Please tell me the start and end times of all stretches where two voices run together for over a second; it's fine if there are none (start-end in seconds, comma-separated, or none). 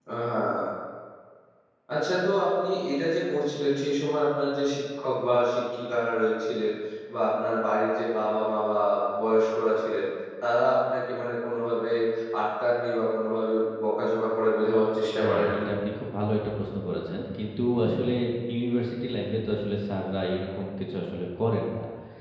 none